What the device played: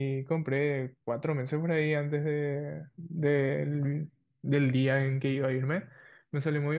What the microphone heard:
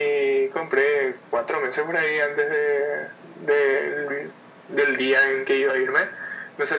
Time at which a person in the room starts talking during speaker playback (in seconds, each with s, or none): none